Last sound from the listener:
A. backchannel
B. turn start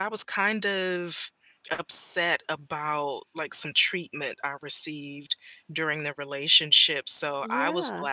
A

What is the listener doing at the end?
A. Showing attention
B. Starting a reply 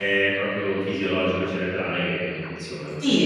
B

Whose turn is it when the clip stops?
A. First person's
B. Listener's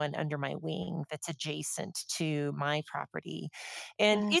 A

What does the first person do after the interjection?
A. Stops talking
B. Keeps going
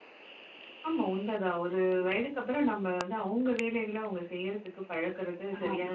A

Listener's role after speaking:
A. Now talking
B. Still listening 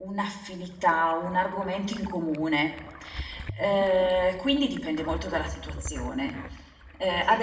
B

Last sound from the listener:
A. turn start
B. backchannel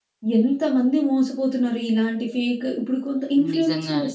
B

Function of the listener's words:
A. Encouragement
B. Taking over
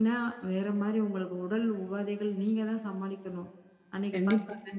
B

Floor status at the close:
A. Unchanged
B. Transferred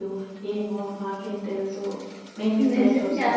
B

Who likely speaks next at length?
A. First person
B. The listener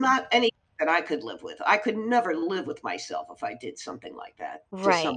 B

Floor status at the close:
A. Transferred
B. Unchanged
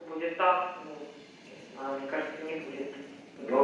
A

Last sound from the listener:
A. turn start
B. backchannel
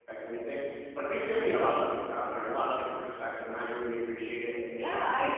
A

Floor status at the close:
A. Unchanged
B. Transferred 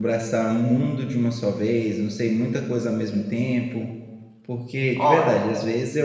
A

